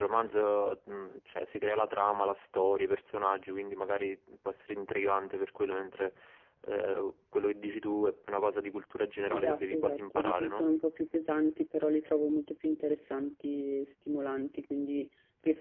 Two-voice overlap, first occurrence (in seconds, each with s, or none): 9.3 s